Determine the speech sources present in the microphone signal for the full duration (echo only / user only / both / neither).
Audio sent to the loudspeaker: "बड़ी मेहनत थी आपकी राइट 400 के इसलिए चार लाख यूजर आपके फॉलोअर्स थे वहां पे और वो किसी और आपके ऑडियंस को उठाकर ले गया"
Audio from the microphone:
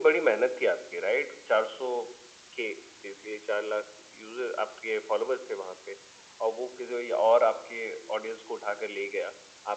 echo only